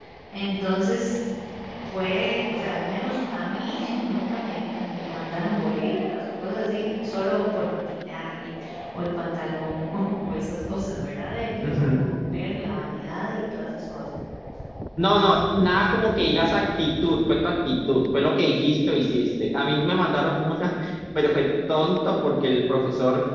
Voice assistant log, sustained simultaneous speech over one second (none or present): none